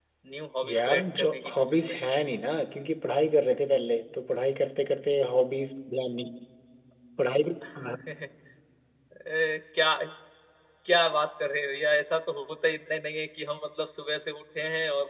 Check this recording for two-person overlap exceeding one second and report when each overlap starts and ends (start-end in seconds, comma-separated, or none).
0.6-1.9